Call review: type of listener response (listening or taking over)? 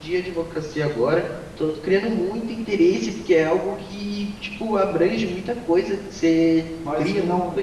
taking over